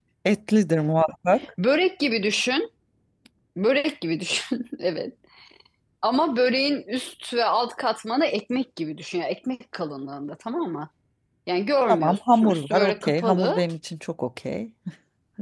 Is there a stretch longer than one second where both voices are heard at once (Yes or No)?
Yes